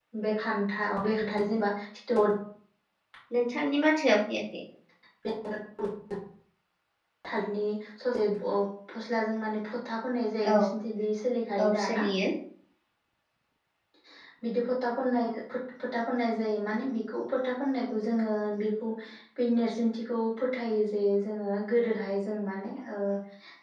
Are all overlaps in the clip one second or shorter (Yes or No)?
Yes